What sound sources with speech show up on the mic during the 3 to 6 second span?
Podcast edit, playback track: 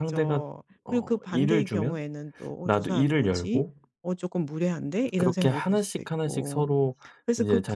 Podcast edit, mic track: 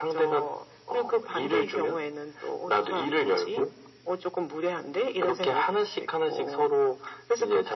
echo only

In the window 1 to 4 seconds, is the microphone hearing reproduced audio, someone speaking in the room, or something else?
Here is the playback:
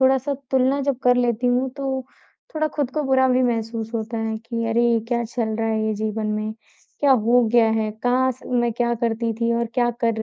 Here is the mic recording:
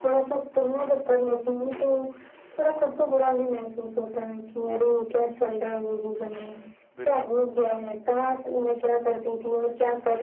echo only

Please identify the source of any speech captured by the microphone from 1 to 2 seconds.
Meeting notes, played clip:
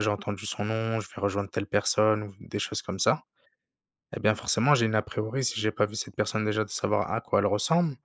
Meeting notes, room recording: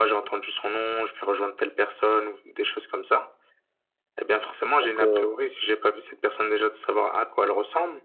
echo only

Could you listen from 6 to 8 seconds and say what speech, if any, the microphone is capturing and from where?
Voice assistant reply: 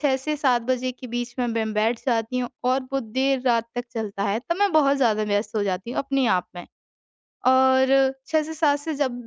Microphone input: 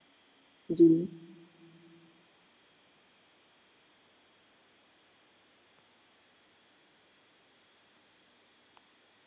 neither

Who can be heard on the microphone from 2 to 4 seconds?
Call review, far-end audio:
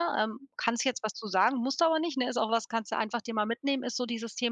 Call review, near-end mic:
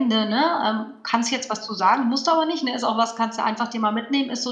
echo only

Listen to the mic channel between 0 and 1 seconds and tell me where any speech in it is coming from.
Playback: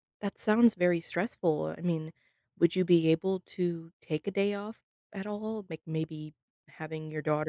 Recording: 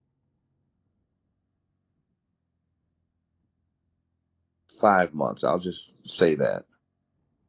neither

